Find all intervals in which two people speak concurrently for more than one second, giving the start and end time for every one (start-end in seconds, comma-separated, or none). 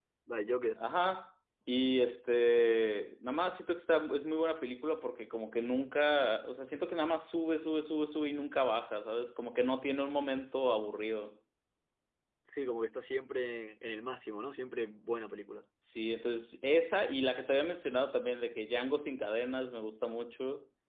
none